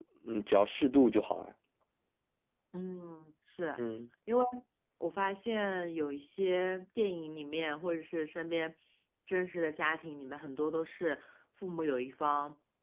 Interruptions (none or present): none